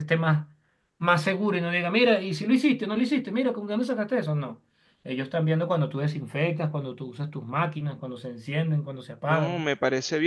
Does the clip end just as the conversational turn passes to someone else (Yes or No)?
Yes